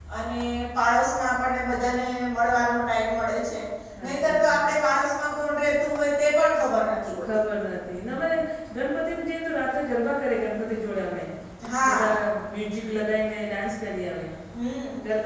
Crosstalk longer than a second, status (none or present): none